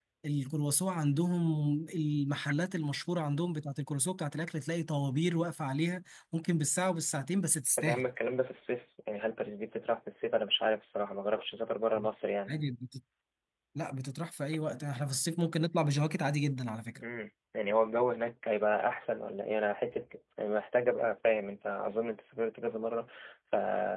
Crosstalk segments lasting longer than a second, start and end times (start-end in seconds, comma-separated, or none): none